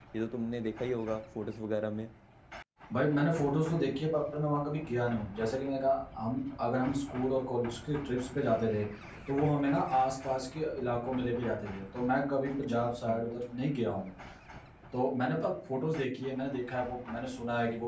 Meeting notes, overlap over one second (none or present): none